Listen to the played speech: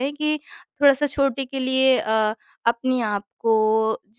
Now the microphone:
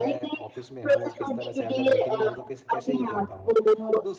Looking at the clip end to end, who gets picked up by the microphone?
both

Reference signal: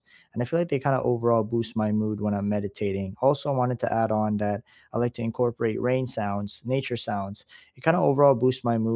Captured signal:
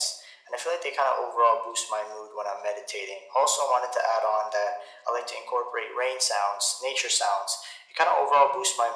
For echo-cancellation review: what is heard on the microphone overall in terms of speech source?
echo only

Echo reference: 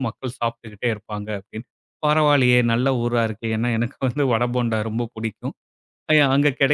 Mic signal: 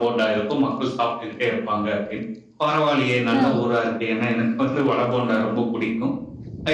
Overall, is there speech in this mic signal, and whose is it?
both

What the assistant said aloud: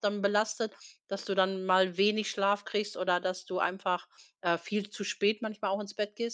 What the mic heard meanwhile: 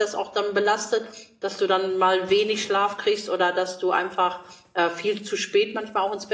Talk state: echo only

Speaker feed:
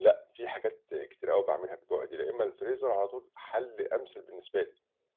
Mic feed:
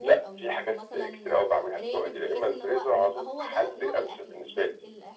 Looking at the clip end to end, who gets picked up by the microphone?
both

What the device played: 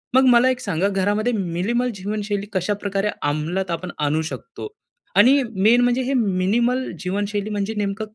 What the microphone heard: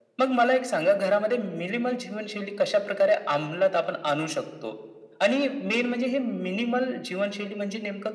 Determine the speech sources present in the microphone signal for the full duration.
echo only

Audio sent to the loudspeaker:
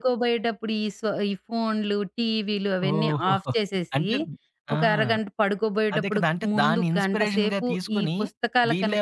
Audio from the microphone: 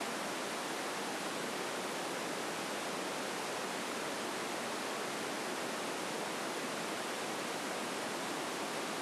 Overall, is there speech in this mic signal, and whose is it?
neither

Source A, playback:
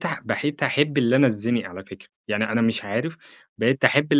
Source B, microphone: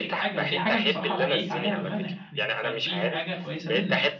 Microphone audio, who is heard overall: both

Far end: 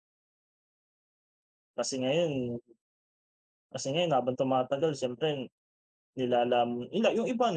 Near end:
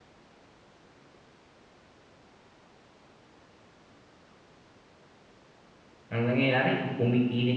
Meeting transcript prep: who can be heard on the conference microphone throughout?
user only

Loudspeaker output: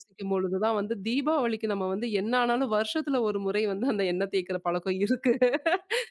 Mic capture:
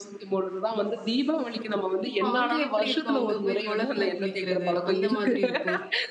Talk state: both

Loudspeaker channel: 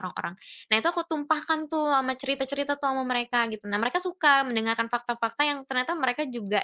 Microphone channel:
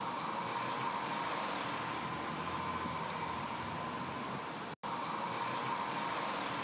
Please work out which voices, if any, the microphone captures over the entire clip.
neither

